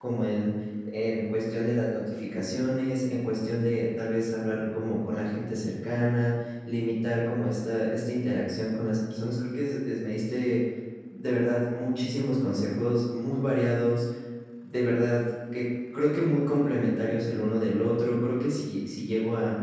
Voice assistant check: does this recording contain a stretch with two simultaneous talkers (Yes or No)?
No